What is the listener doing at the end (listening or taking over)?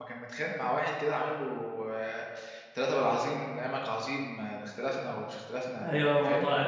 taking over